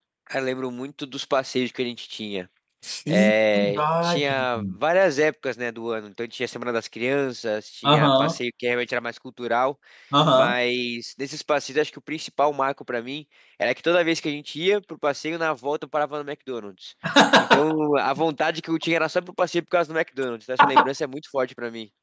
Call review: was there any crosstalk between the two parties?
Yes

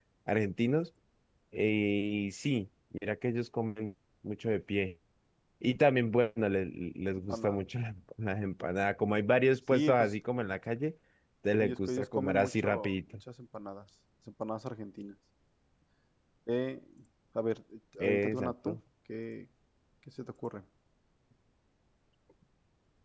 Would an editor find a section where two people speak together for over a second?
Yes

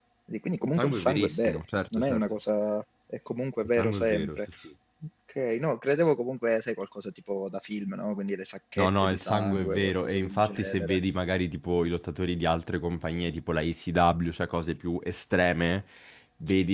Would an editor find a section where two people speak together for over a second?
Yes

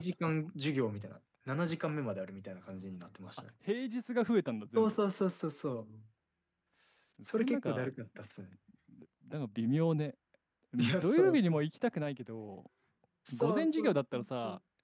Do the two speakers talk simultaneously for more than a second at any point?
Yes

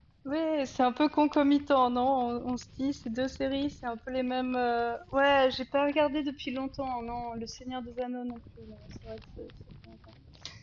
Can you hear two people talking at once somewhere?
No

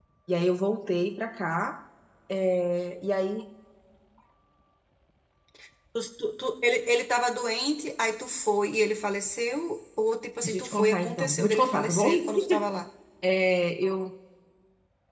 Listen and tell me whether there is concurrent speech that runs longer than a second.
Yes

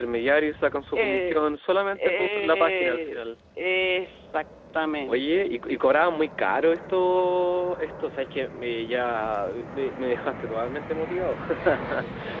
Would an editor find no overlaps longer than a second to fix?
No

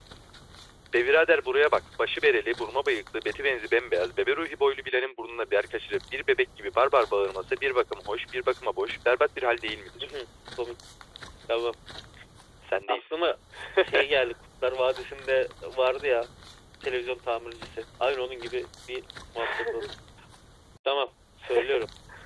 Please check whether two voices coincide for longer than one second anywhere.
No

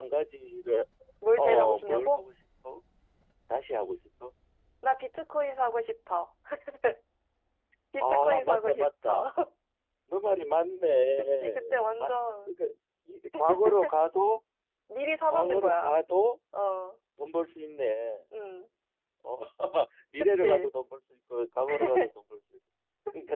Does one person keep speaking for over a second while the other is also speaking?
Yes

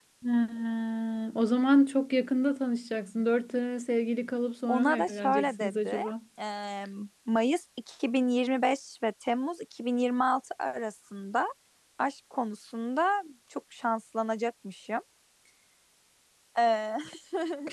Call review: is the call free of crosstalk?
No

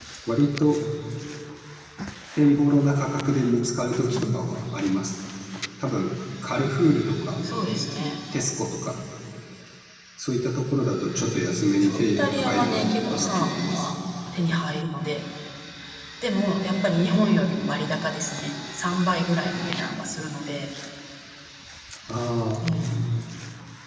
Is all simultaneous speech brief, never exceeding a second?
No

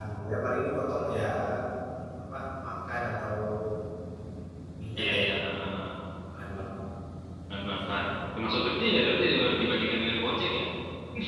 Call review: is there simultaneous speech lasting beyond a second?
No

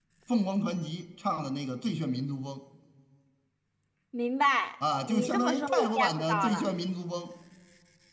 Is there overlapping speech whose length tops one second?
Yes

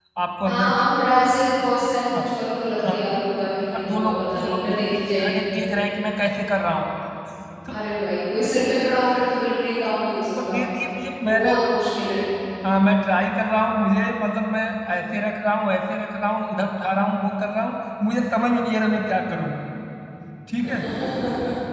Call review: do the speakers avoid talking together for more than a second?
No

